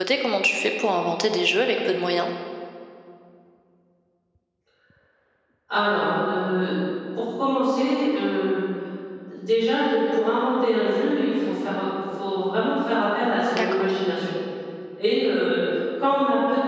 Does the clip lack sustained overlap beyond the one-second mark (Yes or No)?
Yes